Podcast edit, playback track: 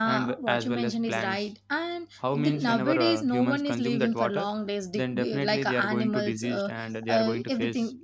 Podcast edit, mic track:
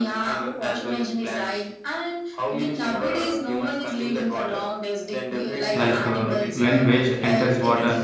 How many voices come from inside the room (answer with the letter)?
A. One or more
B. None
A